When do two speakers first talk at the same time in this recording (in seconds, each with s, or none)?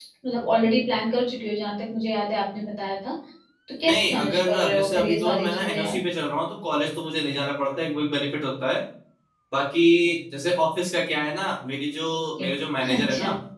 3.8 s